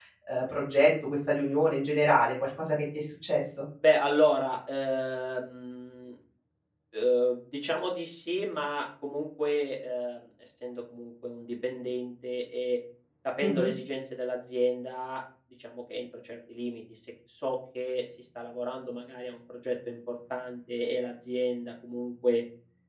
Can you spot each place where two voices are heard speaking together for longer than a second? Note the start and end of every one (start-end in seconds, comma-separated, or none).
none